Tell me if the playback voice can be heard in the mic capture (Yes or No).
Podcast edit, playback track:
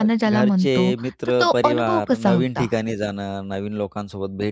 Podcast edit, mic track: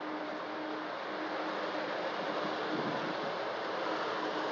No